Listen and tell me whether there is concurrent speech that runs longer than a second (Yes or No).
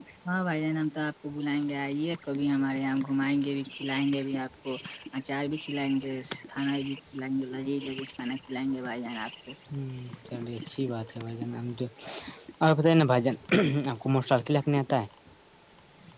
No